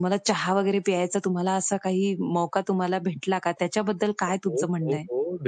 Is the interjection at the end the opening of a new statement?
Yes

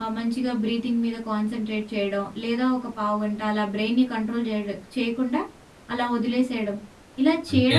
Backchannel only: Yes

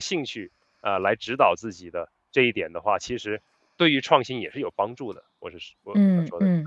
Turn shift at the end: Yes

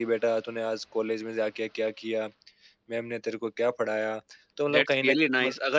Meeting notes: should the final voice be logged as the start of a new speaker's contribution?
Yes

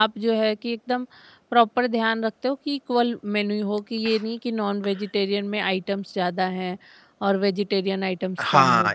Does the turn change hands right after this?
Yes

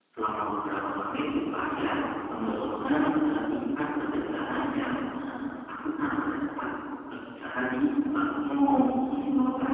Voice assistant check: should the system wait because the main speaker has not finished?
No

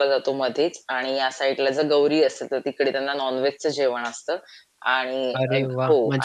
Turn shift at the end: Yes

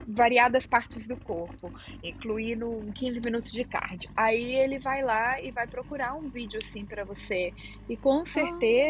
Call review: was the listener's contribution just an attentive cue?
Yes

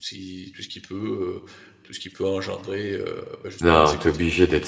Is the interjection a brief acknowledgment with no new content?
No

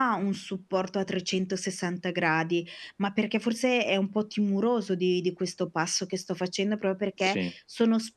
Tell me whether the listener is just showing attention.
Yes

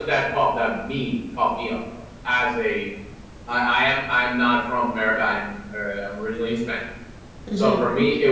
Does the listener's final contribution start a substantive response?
No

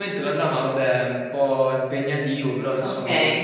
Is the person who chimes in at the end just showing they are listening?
No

